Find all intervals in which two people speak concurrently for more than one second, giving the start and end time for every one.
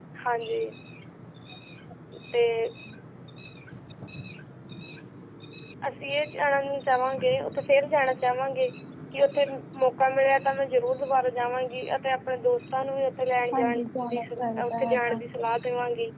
13.5-15.2

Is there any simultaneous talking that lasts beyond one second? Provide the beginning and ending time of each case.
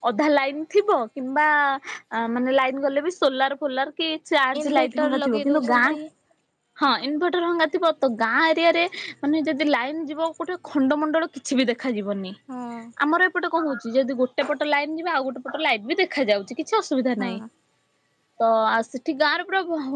4.6-5.8

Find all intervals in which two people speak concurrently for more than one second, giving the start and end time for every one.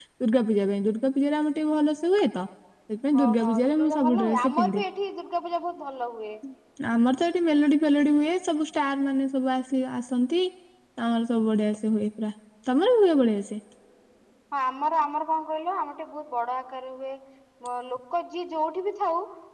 3.2-4.8

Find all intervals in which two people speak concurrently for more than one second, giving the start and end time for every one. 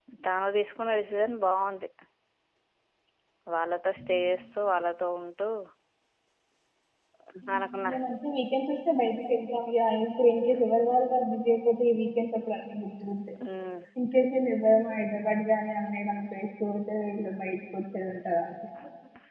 none

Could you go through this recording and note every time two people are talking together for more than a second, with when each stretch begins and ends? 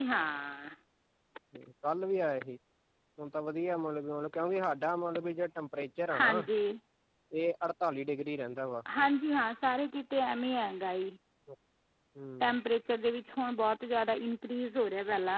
none

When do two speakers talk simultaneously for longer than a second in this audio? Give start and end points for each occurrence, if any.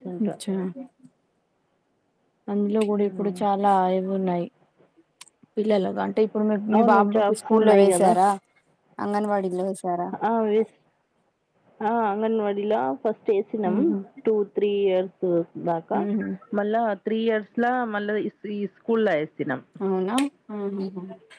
6.8-8.1

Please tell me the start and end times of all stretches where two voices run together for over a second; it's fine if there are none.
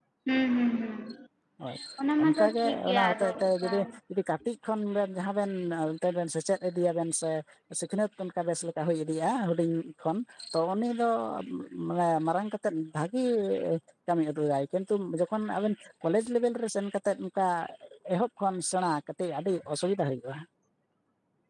2.2-3.7

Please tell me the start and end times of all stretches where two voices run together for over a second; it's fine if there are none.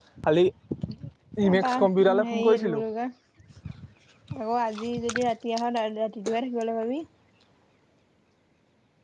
1.4-2.8

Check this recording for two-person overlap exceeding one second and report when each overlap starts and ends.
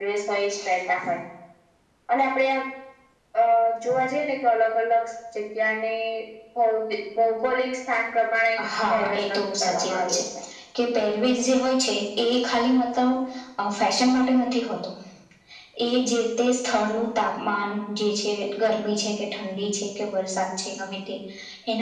8.9-10.2

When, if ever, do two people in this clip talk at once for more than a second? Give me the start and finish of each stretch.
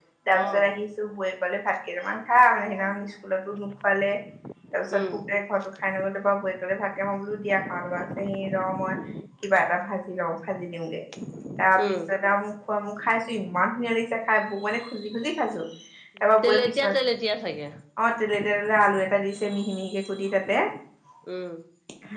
none

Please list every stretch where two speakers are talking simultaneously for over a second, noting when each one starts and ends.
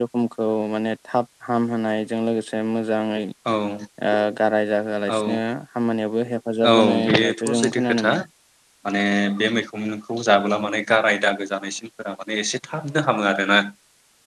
6.7-8.1

